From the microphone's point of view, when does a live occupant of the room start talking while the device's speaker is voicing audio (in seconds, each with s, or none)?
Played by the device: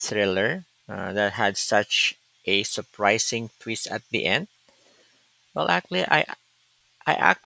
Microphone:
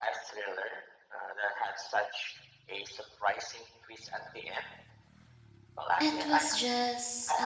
6.0 s